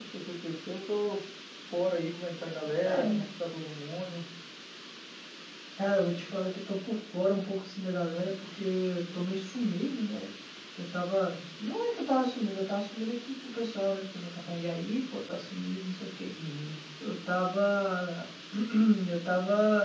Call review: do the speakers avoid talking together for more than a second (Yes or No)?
Yes